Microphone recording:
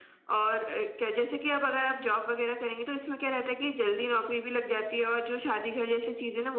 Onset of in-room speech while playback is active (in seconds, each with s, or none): none